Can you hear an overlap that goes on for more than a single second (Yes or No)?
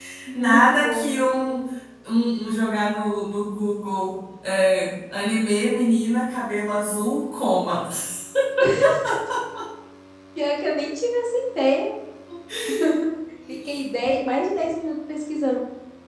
Yes